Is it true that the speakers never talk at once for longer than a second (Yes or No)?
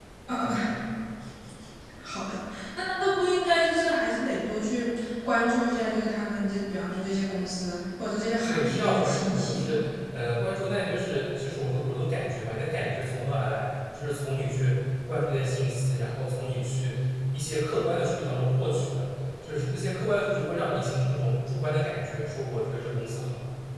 No